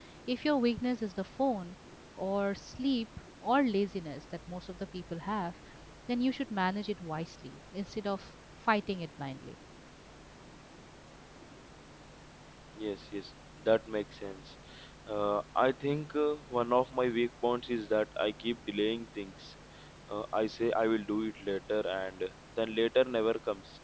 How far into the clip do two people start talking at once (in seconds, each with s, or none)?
none